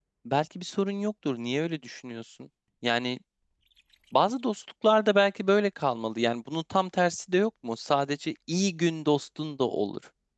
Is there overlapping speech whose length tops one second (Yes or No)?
No